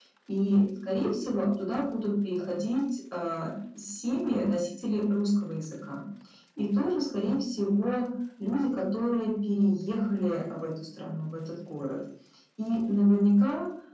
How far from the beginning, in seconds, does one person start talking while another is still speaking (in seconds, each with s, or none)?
none